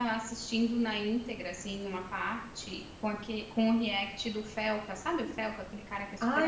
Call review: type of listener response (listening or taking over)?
taking over